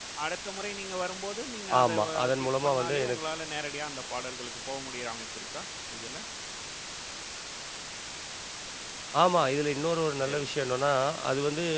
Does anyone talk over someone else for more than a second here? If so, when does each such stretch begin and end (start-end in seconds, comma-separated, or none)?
1.8-3.2